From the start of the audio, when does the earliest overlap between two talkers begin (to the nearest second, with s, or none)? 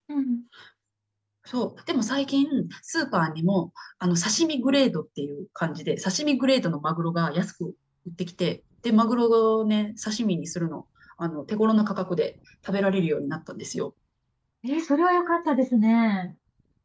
none